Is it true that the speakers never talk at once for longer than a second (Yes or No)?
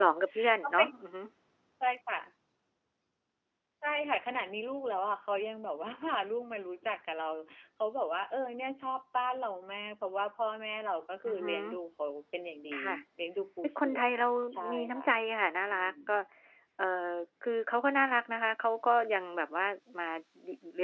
Yes